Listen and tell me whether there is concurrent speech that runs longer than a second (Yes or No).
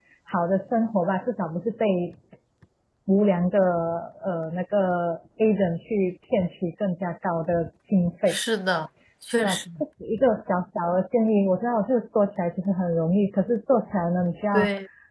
No